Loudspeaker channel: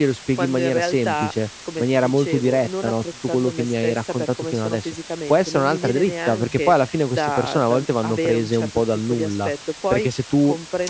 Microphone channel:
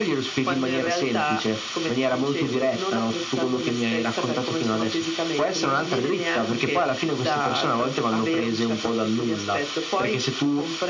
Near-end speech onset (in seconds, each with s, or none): none